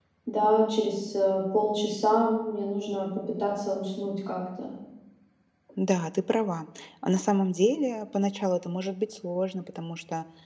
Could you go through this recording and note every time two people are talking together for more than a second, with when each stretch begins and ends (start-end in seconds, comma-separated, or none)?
none